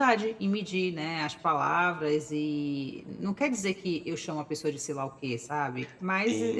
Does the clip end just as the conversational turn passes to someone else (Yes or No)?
Yes